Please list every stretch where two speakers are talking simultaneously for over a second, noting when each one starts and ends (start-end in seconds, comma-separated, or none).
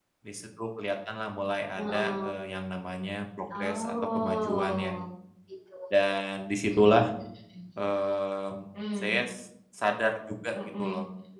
3.5-4.9